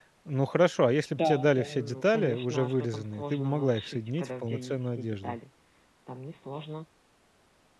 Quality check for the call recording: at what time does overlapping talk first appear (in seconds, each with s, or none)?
1.1 s